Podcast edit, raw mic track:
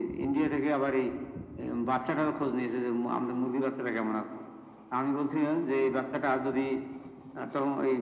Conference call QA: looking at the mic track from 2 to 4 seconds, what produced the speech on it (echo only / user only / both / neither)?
echo only